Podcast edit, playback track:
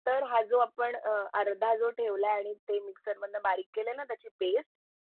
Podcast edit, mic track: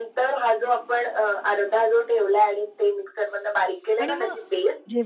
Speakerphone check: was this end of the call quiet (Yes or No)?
No